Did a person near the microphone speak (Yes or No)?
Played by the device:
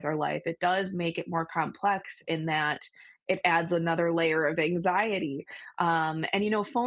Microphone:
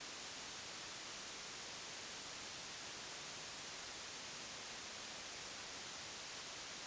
No